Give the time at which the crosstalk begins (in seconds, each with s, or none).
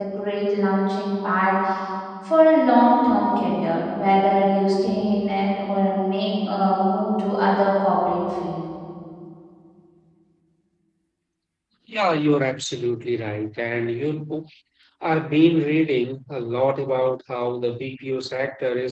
none